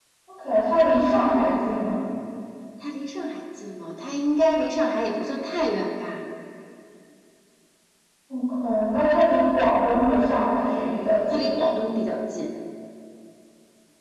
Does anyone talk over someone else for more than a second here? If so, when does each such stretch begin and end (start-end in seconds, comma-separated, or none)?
none